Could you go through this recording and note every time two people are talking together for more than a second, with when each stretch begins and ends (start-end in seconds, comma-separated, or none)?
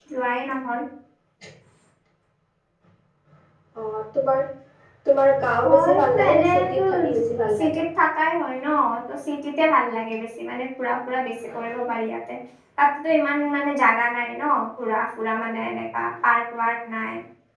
5.6-7.2